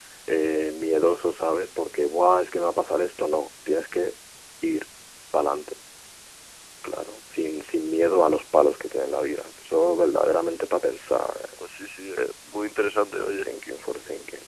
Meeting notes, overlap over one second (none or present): none